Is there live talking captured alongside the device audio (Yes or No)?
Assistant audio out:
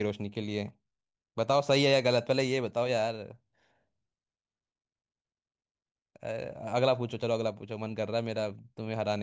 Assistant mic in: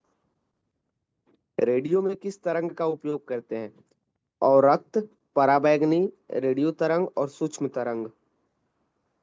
Yes